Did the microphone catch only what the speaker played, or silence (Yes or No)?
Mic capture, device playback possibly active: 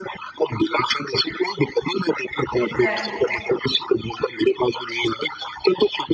No